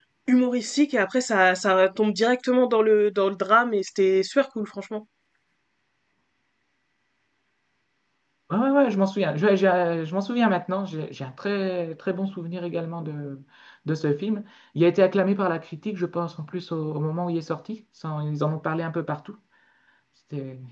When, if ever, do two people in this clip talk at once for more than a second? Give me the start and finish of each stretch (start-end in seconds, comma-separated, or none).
none